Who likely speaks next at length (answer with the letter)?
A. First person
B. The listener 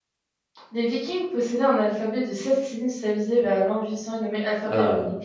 A